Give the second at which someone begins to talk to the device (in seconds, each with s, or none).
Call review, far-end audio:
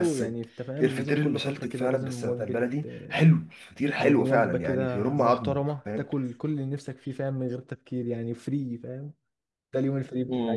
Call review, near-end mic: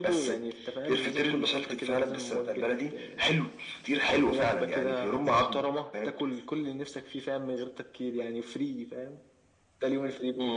none